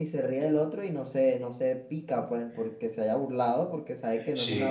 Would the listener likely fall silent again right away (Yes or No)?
Yes